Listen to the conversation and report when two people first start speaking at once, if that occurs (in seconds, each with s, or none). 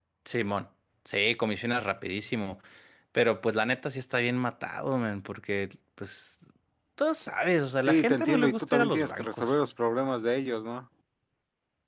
7.8 s